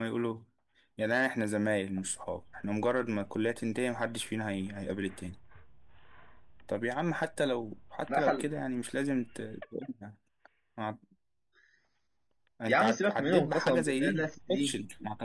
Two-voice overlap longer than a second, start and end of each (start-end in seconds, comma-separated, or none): 12.7-14.7